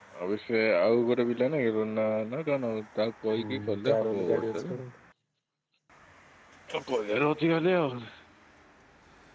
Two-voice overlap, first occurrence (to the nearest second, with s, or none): 3 s